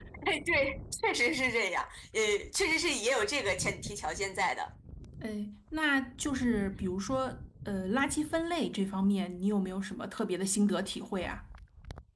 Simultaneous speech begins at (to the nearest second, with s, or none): none